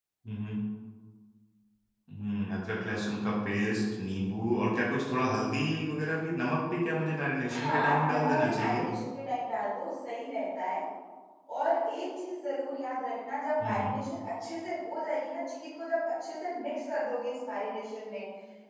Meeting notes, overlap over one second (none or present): present